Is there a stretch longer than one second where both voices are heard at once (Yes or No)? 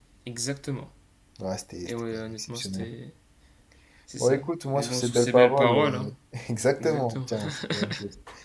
Yes